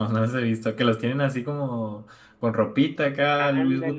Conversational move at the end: taking over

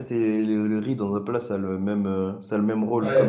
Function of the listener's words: taking over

